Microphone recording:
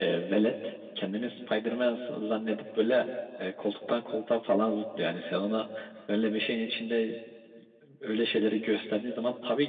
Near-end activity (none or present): none